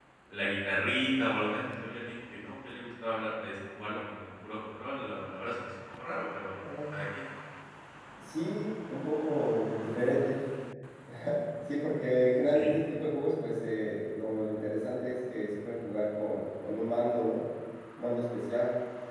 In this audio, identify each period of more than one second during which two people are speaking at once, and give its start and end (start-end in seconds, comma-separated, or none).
none